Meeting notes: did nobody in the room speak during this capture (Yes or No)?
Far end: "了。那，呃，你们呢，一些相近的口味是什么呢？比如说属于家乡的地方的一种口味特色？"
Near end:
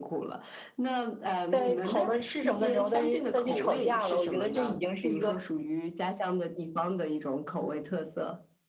No